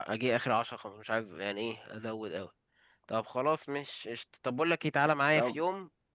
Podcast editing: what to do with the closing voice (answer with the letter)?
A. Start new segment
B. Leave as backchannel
B